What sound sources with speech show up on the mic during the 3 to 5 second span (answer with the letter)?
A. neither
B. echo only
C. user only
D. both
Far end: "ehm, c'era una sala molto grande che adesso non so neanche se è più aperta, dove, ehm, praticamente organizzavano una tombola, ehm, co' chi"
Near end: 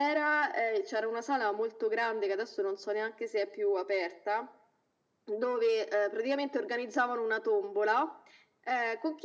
B